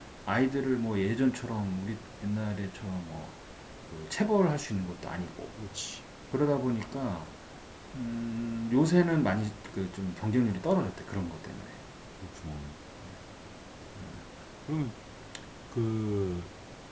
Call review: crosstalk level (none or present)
none